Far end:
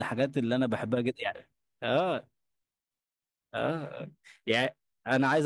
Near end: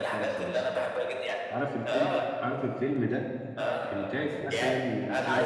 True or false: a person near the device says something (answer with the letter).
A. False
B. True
B